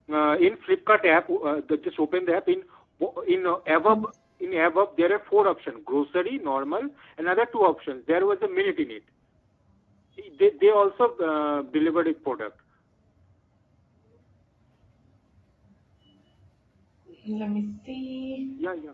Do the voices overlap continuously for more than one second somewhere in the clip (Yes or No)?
No